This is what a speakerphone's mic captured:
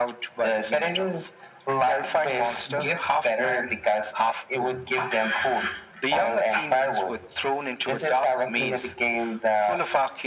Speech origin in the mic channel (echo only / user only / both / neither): echo only